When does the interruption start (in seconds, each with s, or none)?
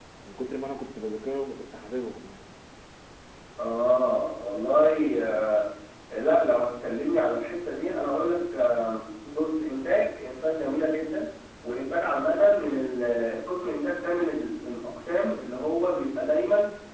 none